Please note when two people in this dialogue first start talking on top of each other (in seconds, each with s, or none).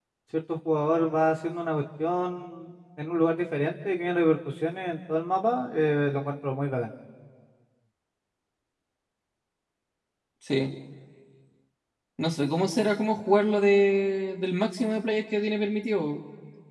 none